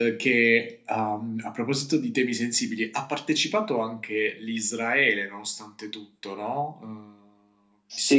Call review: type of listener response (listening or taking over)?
taking over